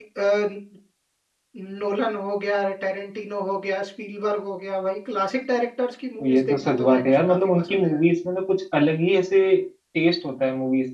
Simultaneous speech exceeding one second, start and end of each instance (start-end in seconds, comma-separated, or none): 6.3-7.9